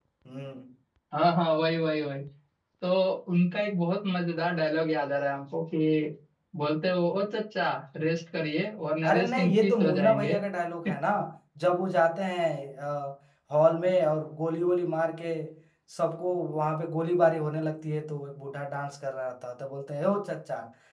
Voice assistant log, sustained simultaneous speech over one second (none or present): present